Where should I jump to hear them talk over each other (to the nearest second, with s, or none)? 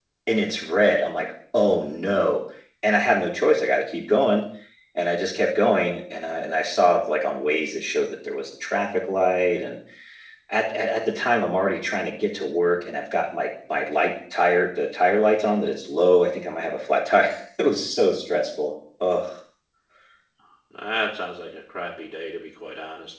none